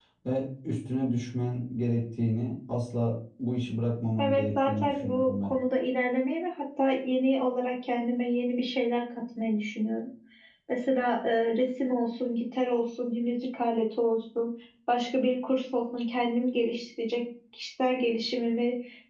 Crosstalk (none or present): present